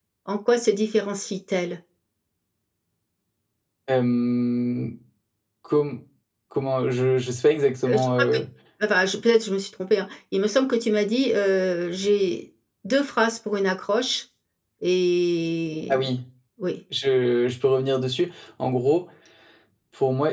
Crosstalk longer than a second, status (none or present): none